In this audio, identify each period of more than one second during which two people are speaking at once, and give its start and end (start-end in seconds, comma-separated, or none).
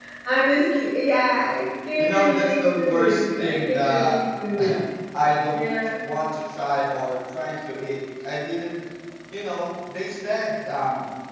2.0-4.2